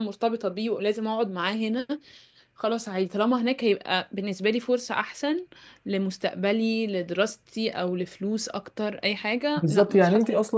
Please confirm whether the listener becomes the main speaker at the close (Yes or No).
Yes